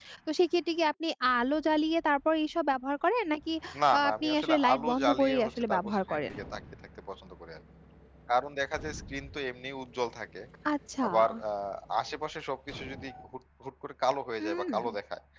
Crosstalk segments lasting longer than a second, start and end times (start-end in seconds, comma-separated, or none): 4.0-6.3